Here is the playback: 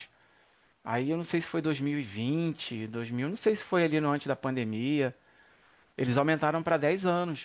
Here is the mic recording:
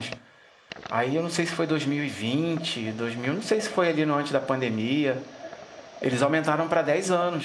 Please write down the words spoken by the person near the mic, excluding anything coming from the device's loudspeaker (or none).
none